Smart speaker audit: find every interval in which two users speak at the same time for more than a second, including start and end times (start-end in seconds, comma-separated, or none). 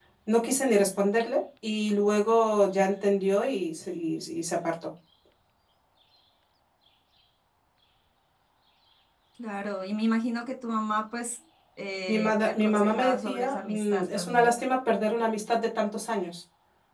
12.1-14.6